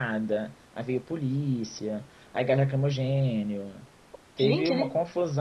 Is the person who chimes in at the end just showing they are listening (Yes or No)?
Yes